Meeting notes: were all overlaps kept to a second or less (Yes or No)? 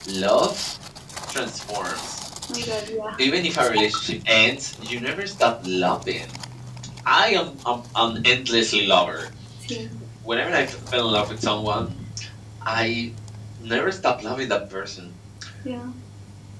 Yes